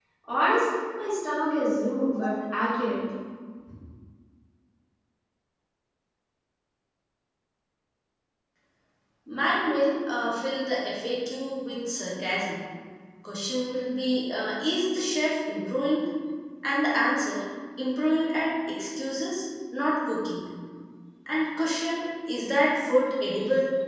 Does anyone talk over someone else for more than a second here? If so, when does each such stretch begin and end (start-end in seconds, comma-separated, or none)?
none